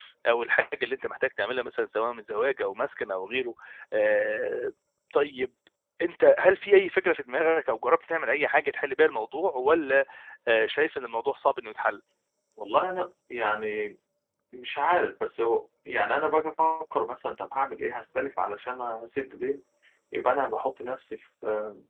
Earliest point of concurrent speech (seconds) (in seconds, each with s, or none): none